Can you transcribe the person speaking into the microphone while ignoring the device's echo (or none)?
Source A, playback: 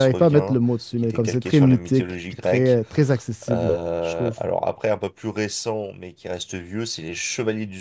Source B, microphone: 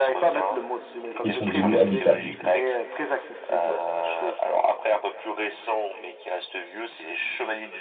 Ils sont devenus habitables du coup.